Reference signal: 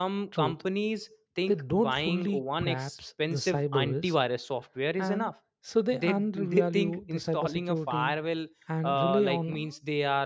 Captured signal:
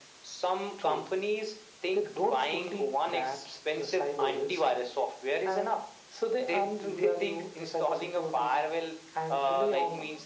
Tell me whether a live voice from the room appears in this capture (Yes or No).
No